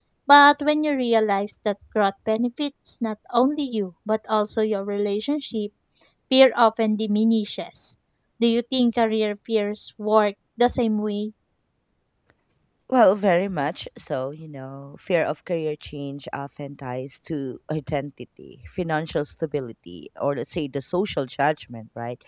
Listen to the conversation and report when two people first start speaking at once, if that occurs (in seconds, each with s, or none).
none